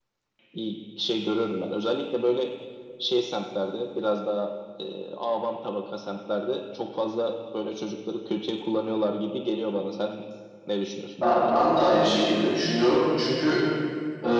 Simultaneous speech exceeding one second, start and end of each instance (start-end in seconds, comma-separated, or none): none